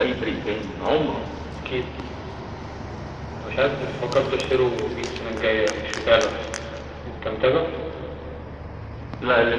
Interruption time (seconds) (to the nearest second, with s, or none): none